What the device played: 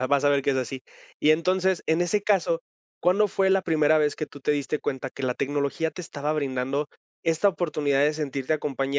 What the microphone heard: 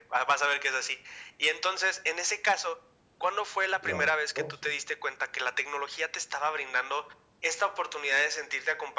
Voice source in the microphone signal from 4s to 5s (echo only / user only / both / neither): both